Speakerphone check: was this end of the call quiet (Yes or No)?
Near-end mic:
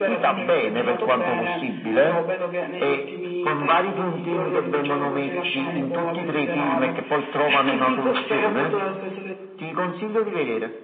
No